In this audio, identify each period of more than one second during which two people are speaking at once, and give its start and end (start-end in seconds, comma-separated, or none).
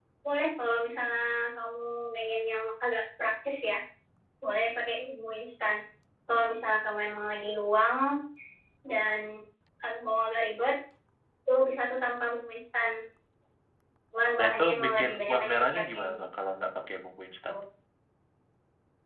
14.4-16.1